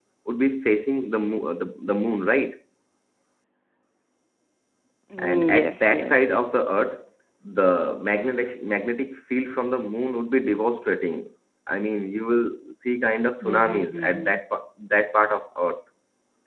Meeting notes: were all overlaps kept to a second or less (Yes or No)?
No